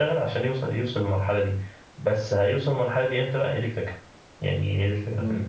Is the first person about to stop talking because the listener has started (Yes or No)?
No